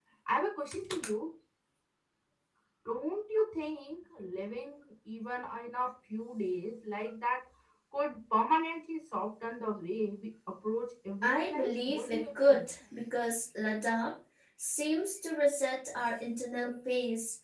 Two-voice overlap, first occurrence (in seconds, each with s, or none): 11.2 s